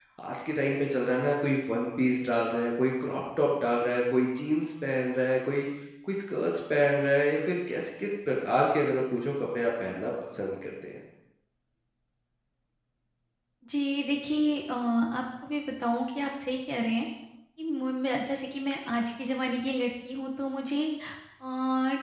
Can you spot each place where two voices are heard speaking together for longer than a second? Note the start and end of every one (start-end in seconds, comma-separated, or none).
none